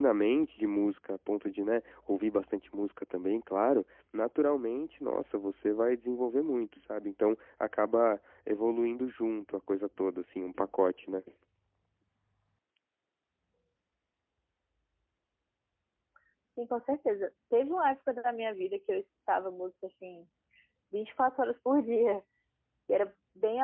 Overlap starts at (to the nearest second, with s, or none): none